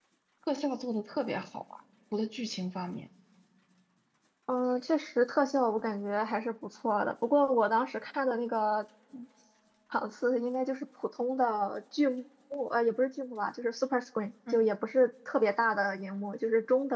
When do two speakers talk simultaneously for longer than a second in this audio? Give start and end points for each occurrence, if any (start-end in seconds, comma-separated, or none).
none